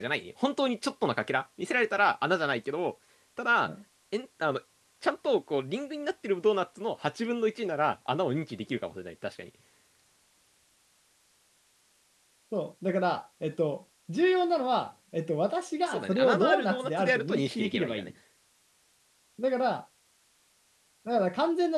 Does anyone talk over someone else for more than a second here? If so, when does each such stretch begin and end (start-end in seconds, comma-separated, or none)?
15.9-18.1